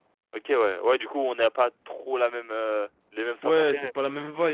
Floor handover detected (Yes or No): Yes